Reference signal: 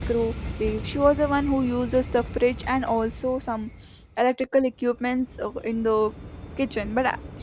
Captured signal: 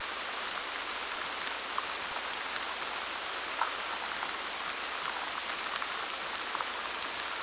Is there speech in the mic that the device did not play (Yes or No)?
No